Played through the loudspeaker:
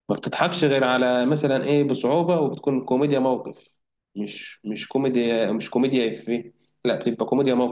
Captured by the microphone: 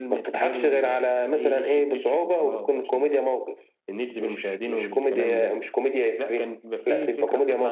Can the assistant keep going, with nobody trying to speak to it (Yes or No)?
No